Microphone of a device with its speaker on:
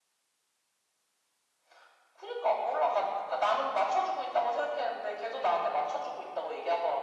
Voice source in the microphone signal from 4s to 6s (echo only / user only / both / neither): echo only